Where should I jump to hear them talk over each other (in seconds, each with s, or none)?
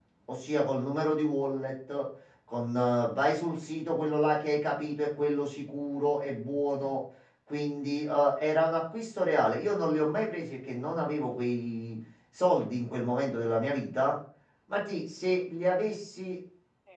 none